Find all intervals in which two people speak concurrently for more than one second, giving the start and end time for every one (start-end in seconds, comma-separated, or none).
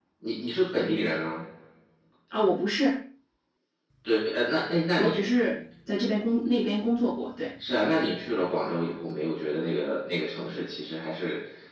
none